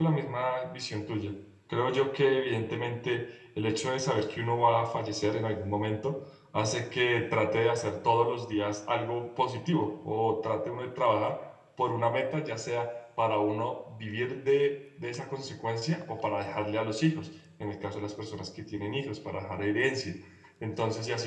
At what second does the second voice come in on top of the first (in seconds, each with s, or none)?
none